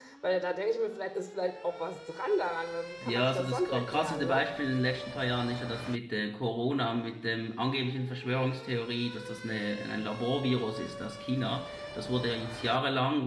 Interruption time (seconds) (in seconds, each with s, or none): 3.0 s